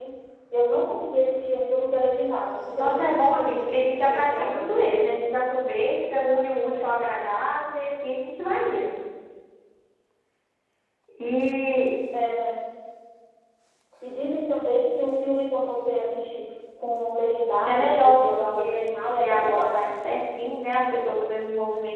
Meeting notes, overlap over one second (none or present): present